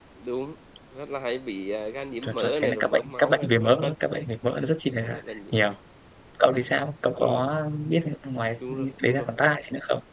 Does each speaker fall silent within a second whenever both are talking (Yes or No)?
No